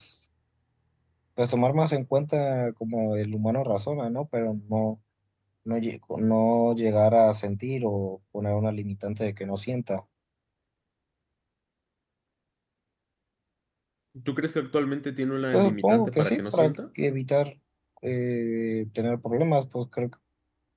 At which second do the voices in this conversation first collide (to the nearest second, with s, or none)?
16 s